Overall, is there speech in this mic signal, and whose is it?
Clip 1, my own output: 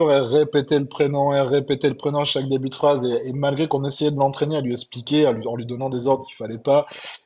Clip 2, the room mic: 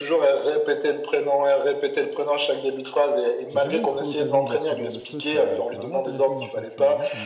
both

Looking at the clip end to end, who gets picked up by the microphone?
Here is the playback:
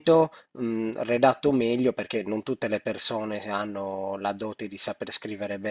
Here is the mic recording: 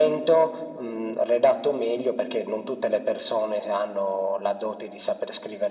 echo only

